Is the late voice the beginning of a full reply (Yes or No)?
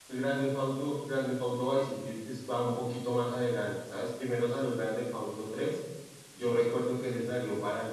No